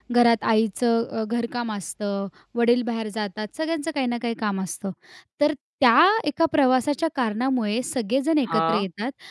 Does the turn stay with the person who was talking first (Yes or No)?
Yes